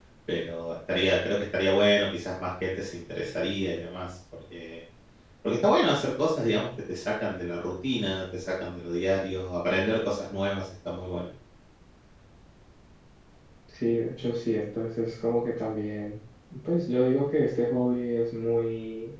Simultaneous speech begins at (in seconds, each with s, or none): none